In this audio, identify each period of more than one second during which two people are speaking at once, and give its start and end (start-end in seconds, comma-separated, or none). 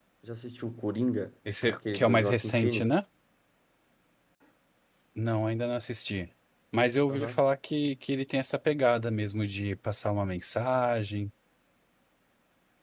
1.7-3.0